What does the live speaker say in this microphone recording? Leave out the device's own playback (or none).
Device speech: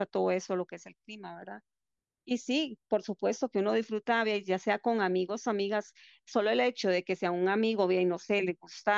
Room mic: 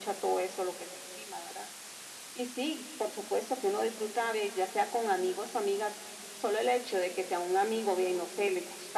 none